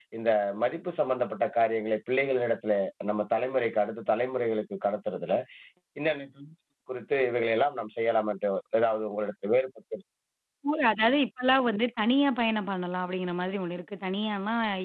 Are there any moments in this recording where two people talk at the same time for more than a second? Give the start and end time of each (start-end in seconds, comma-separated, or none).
none